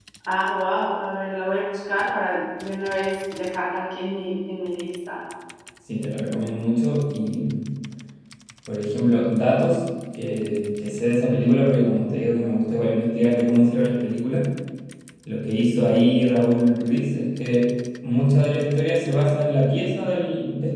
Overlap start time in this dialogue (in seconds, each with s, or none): none